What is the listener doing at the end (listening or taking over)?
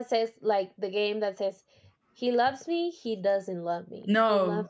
taking over